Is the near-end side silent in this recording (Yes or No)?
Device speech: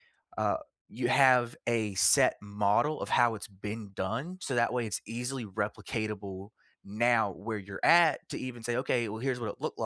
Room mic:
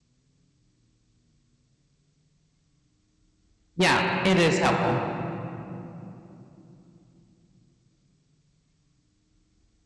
No